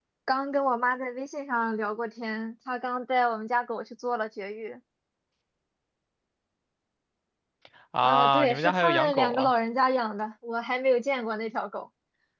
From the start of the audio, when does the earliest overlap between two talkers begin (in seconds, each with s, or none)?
8.0 s